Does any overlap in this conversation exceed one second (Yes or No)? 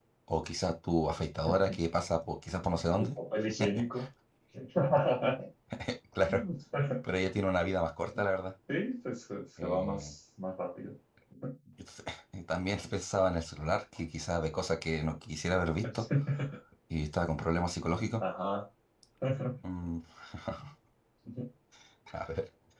No